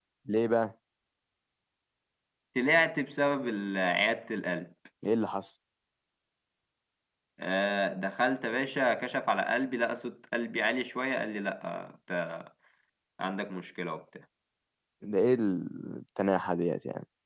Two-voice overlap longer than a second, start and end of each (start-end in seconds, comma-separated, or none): none